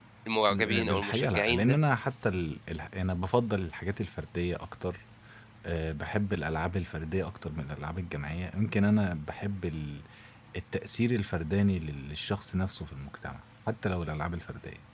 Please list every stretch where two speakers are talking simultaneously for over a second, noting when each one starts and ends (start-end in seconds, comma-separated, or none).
0.5-1.8